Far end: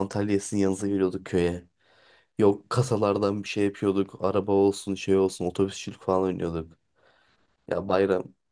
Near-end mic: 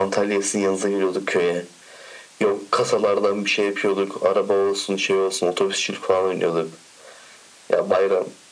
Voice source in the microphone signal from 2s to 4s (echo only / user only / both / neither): echo only